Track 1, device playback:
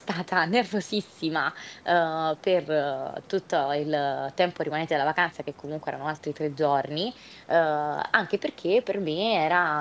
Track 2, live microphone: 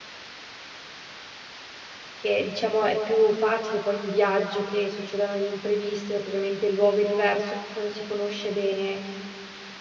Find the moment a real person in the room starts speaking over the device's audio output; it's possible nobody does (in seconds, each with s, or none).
2.2 s